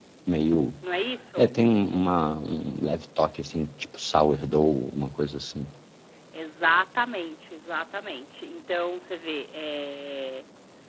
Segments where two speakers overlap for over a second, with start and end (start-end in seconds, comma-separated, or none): none